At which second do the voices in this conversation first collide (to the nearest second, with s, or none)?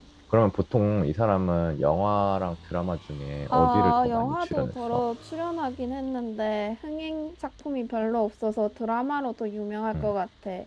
4 s